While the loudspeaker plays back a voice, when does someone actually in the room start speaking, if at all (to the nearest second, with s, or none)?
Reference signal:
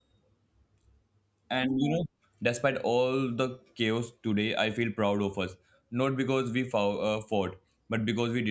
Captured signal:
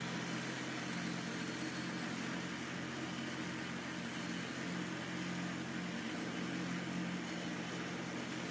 none